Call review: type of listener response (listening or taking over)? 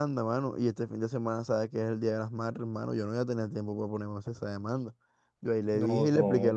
listening